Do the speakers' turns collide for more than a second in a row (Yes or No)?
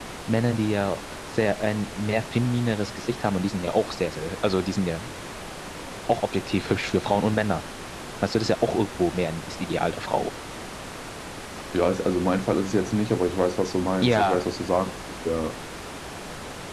No